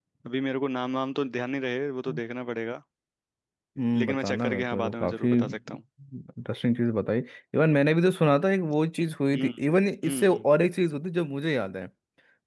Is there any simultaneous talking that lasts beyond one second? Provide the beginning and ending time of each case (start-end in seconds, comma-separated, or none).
4.0-5.8